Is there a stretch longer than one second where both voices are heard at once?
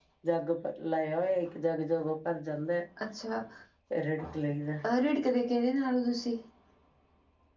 No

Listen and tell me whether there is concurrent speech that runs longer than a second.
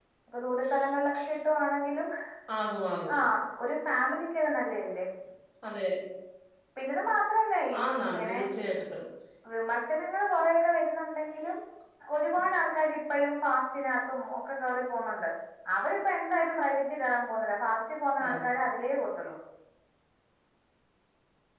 No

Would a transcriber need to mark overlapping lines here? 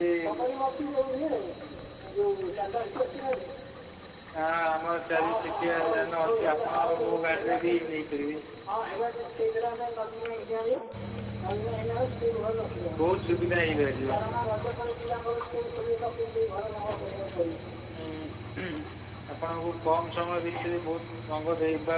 Yes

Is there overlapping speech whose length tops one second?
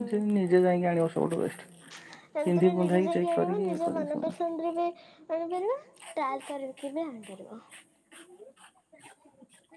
Yes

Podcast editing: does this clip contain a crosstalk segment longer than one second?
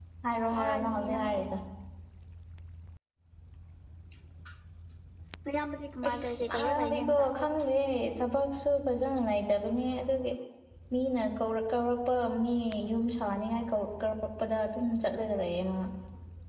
Yes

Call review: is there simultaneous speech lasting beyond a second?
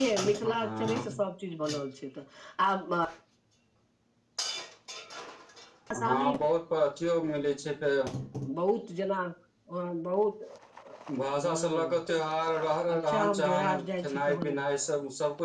Yes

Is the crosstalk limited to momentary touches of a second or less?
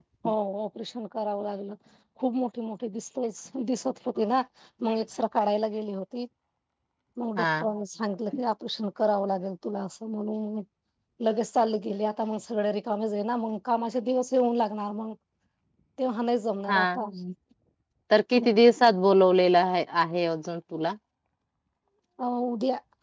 Yes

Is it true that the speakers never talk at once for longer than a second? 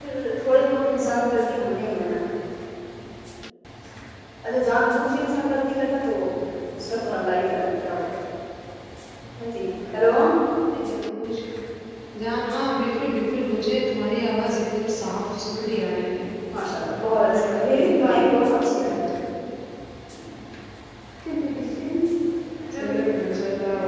No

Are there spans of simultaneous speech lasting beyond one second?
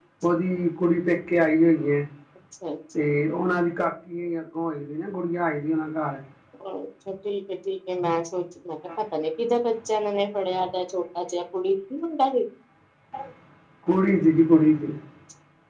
No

